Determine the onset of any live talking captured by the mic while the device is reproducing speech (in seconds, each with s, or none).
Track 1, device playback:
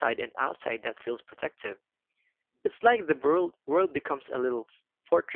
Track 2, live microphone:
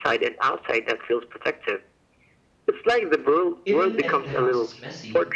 3.6 s